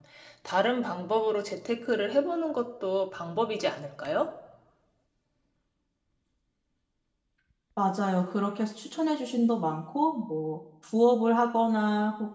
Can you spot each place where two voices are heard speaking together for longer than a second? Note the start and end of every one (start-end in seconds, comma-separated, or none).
none